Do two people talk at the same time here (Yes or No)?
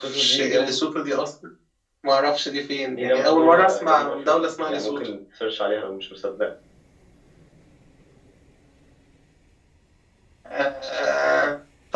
Yes